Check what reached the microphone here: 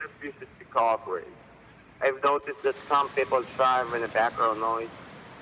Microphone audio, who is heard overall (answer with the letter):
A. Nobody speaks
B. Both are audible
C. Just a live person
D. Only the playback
D